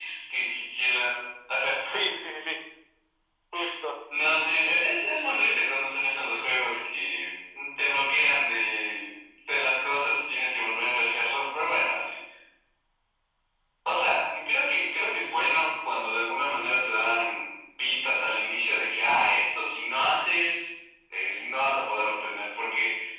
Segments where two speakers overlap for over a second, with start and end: none

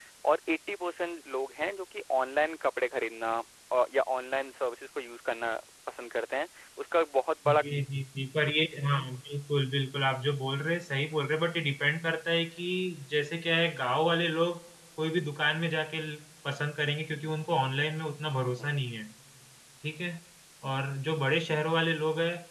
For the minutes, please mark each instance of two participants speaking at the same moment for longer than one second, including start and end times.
none

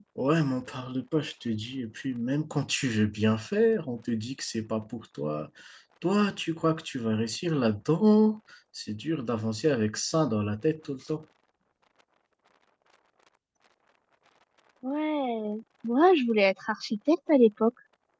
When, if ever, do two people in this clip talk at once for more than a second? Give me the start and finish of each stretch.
none

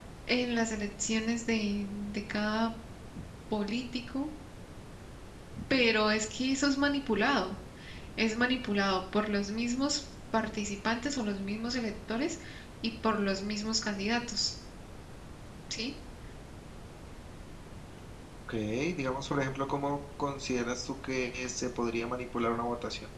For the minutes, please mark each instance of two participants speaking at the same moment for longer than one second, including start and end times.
none

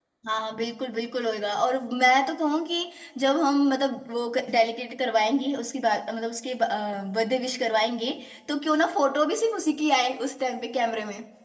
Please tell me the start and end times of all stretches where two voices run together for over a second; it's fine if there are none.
none

